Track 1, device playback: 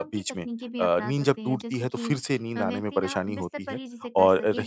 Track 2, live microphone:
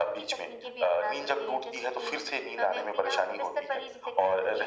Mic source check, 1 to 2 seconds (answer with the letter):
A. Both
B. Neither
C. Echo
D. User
C